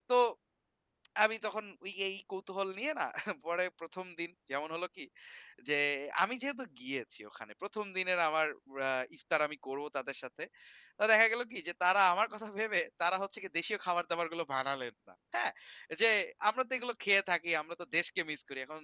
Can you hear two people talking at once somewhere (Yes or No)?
No